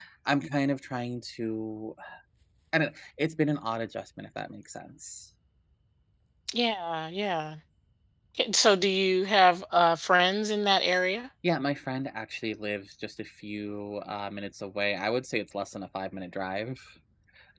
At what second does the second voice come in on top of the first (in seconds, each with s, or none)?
none